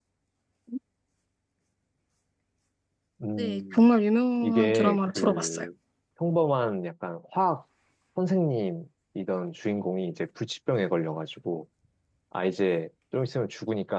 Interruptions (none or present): present